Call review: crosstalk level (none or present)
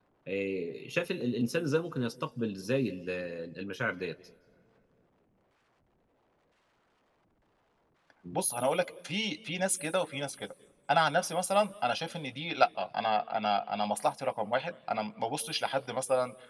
none